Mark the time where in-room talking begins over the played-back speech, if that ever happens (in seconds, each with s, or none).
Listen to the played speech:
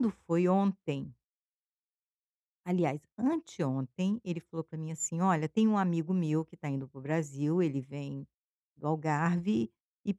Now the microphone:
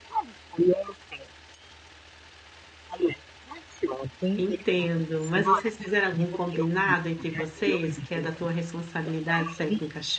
4.4 s